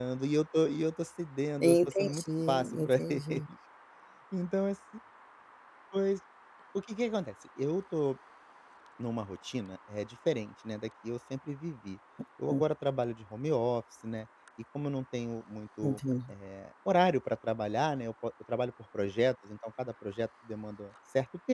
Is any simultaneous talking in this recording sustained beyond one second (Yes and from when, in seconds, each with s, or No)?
Yes, from 1.6 s